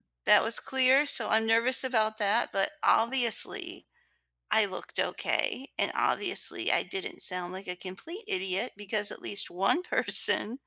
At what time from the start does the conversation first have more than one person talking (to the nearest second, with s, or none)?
none